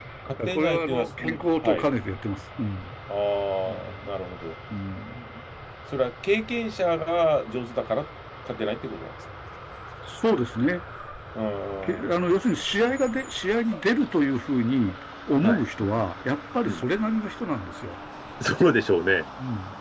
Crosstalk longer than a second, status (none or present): present